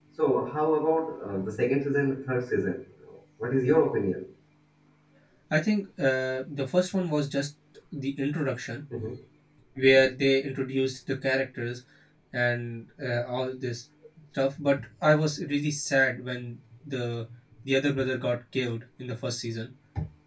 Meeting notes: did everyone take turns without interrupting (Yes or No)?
Yes